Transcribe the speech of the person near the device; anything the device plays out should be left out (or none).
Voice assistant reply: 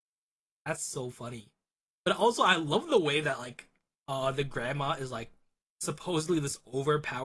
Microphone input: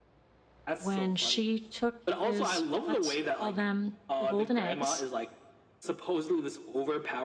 when she took his, let's call them the golden eggs.